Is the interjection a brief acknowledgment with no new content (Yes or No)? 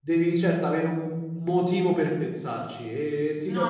Yes